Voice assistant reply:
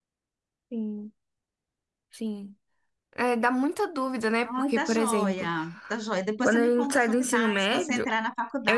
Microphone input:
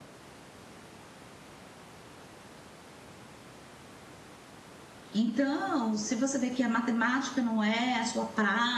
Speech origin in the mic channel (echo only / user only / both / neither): user only